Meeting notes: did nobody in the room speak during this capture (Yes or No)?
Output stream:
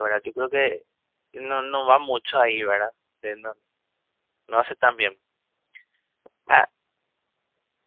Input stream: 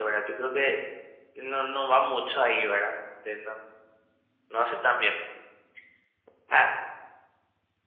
Yes